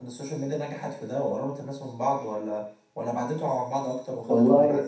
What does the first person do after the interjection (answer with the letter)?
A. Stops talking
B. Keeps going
A